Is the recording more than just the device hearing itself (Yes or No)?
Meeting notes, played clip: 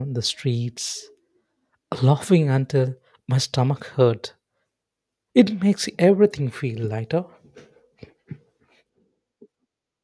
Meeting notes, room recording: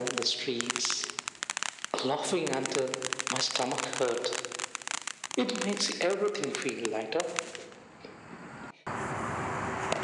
No